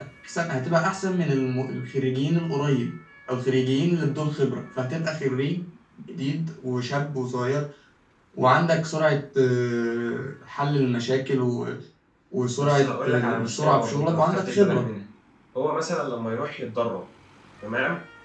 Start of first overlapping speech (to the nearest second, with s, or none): 13 s